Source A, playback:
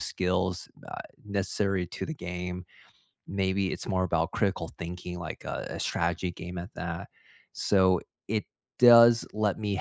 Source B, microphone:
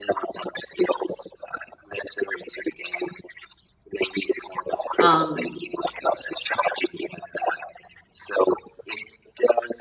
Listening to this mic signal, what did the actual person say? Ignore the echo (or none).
Um,